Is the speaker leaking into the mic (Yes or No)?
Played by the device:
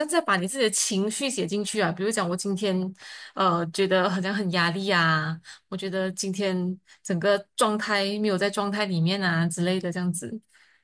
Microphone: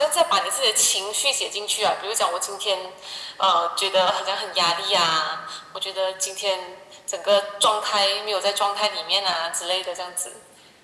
Yes